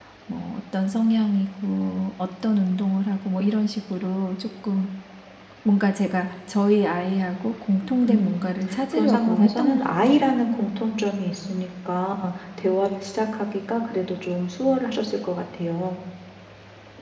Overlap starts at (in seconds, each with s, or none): 8.0 s